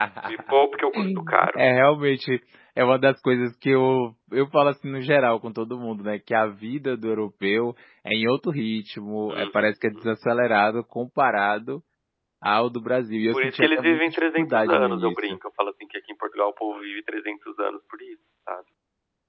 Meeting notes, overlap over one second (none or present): present